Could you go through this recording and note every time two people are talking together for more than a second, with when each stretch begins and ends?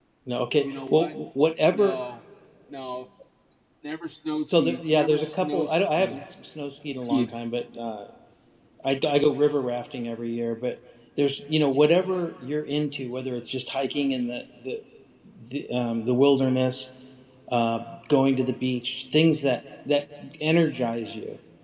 4.5-6.2

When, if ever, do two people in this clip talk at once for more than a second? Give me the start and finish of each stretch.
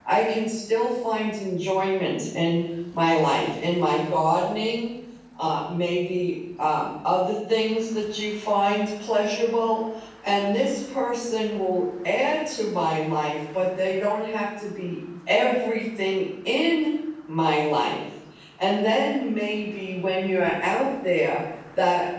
none

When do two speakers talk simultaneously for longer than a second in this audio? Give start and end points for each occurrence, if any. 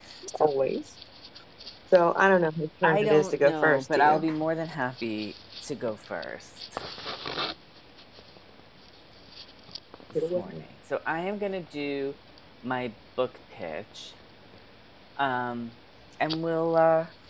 3.0-4.2

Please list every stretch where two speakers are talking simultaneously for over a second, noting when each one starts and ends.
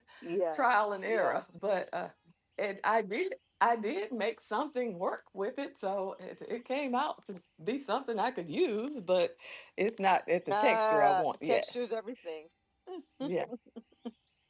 10.5-11.7

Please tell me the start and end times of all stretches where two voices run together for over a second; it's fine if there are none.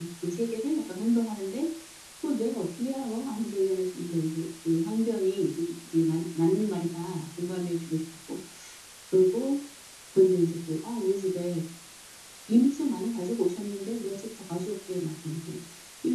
none

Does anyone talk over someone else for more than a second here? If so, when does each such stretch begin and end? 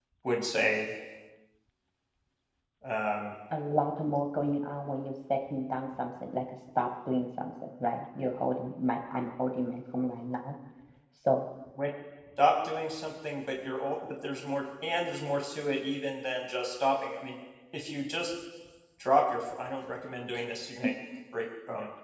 none

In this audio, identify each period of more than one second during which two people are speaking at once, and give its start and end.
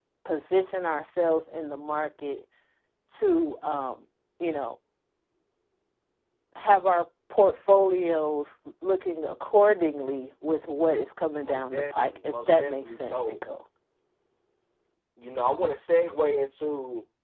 11.4-13.4

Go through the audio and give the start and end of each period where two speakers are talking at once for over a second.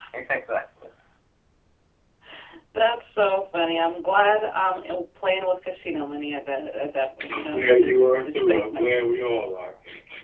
7.3-9.0

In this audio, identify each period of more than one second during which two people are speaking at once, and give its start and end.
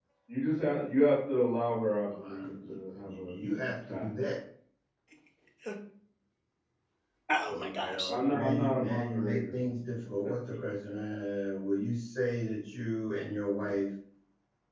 2.1-3.4, 7.5-9.6

